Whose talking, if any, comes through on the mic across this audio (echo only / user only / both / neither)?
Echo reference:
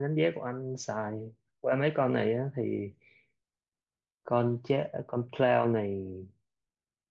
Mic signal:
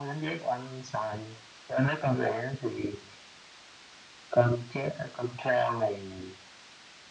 echo only